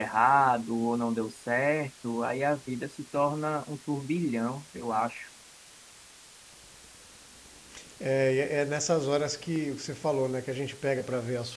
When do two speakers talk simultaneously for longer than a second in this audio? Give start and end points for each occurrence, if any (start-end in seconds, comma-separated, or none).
none